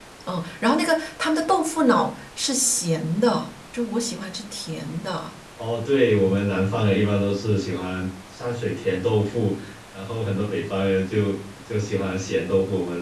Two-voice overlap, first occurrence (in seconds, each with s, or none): none